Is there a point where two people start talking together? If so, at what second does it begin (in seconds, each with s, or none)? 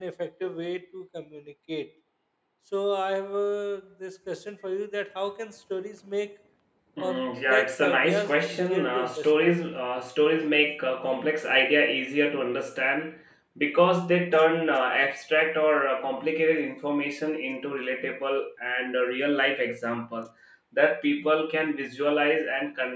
7.0 s